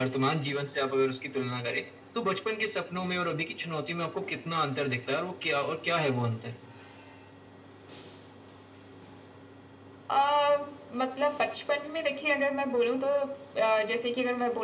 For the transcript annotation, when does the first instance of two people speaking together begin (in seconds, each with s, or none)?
none